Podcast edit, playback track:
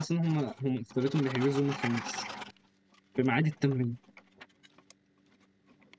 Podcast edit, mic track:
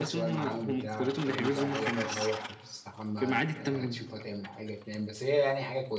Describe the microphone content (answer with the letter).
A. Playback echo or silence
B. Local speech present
B